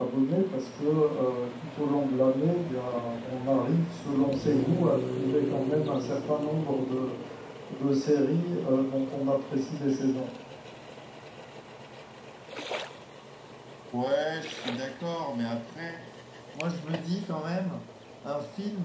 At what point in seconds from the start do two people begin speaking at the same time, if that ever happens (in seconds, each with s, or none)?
none